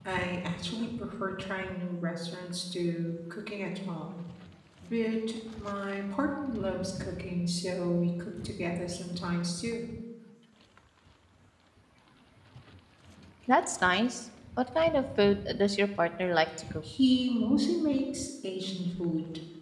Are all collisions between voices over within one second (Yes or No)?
Yes